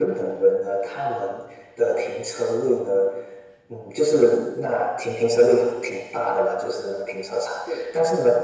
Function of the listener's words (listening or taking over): listening